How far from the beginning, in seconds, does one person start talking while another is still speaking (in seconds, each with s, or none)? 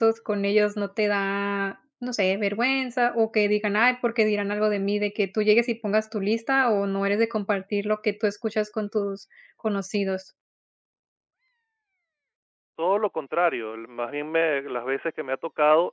none